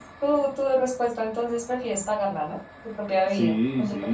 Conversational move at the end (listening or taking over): taking over